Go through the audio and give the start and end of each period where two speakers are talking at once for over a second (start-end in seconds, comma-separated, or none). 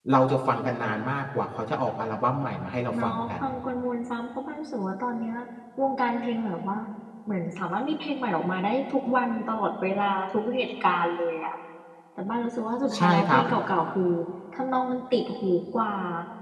none